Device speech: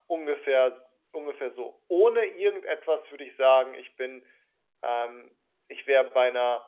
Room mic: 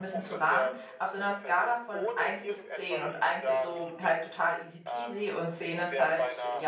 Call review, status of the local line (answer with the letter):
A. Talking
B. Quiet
A